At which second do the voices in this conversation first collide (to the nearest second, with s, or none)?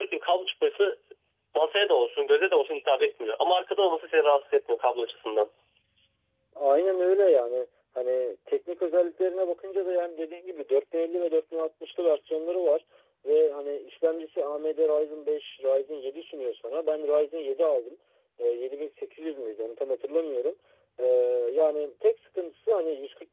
none